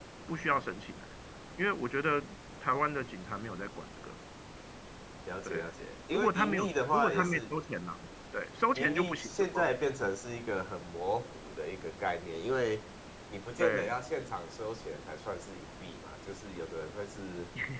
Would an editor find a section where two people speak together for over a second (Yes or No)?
Yes